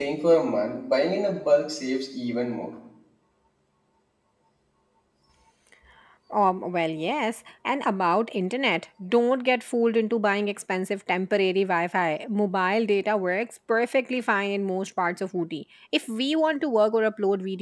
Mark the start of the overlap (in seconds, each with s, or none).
none